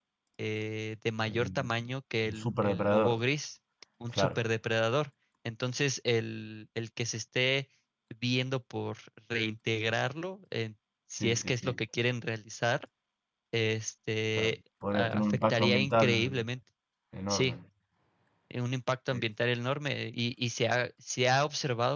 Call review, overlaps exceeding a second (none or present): present